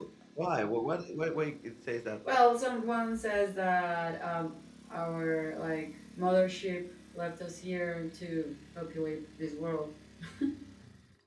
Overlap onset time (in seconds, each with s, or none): none